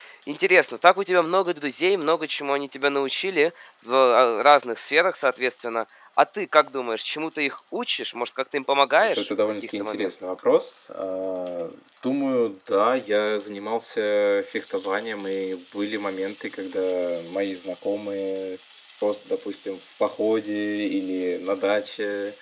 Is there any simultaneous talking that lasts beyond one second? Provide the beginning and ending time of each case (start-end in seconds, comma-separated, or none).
8.9-10.1